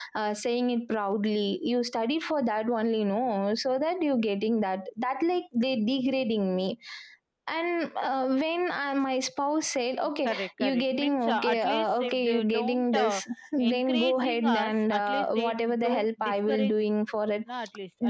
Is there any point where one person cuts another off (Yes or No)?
Yes